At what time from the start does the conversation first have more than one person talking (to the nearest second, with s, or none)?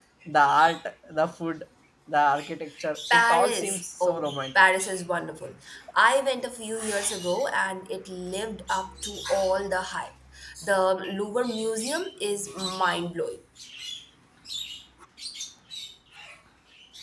3 s